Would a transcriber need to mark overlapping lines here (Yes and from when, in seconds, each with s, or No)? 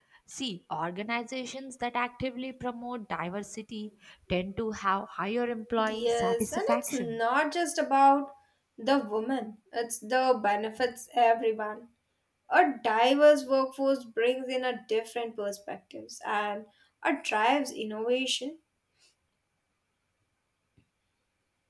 Yes, from 5.8 s